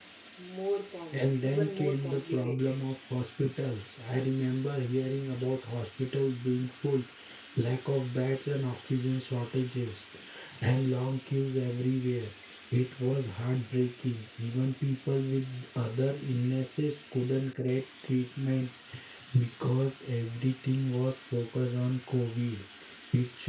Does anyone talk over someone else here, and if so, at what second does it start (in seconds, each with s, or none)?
1.1 s